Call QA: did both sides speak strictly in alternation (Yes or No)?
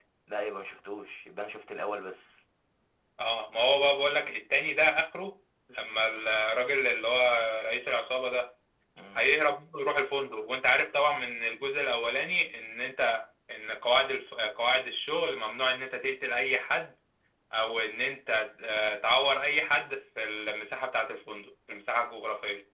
Yes